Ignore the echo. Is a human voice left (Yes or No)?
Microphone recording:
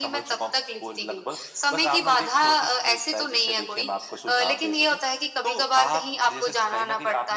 No